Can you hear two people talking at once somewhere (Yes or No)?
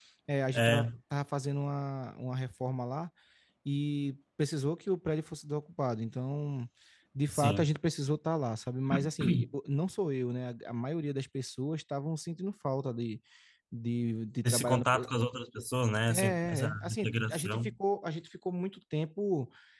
Yes